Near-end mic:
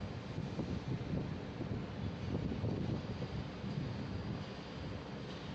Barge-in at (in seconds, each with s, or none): none